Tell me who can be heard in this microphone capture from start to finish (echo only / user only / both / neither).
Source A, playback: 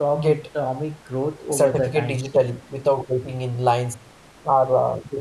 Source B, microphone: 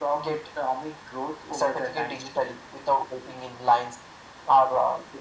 echo only